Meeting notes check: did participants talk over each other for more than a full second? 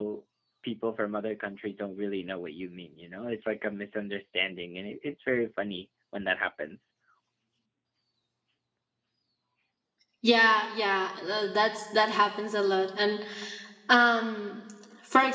No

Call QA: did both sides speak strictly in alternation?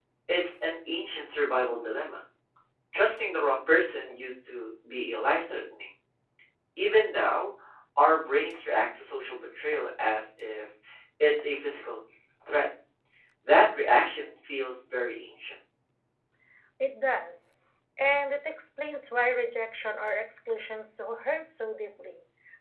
Yes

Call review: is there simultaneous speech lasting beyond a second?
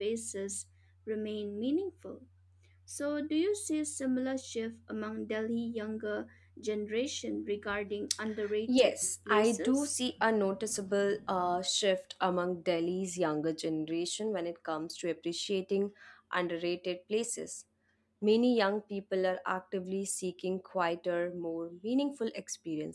Yes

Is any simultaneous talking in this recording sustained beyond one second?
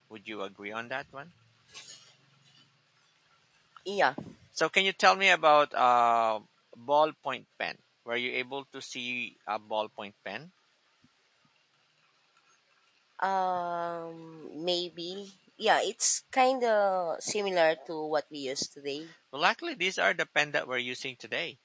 No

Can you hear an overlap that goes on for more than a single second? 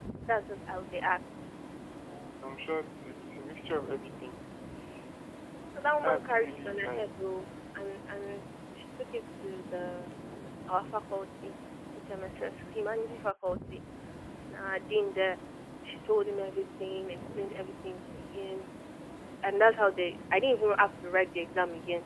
Yes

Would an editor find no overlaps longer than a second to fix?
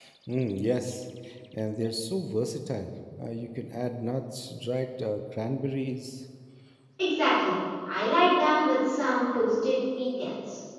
Yes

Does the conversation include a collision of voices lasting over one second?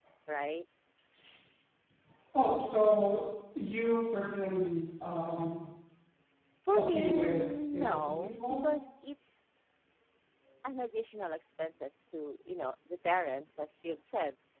Yes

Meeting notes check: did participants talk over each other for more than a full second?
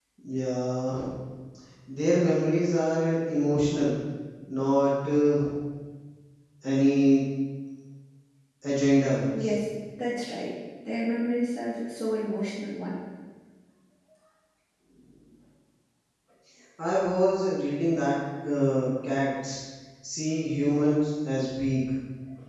No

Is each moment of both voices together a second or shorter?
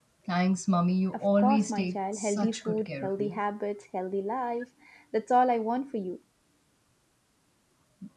No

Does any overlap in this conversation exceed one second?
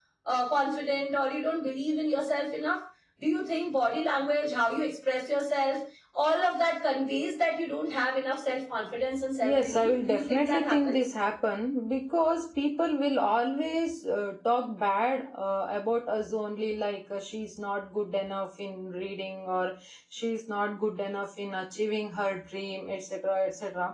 Yes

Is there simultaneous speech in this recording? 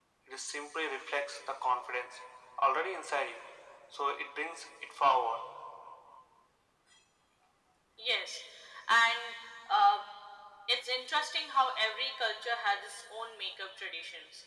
No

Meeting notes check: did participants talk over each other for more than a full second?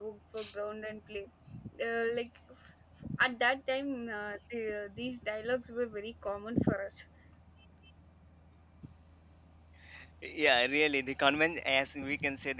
No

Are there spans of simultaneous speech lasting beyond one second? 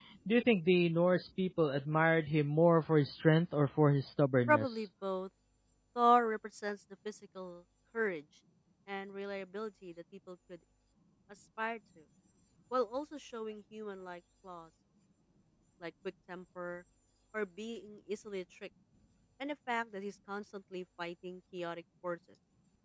No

